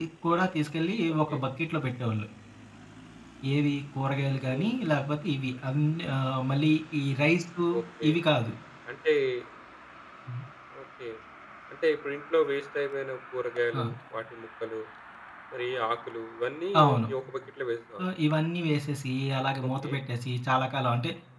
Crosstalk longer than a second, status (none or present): none